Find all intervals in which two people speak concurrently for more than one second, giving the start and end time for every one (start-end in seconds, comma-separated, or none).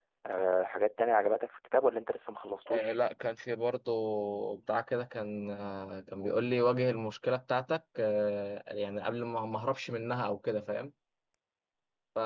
none